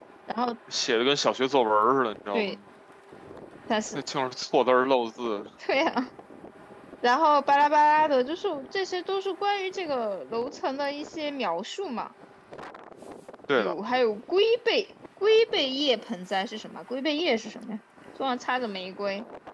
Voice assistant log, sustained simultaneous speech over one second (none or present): none